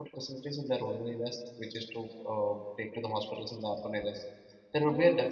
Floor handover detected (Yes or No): No